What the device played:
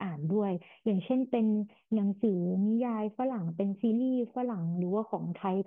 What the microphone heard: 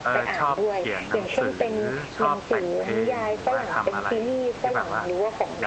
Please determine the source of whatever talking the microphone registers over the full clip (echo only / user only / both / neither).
both